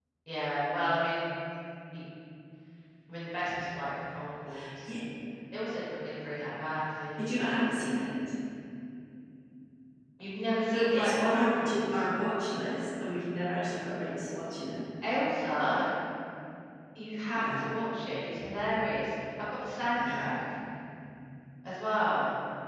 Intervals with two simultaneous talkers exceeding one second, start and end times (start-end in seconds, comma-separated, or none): 10.6-12.0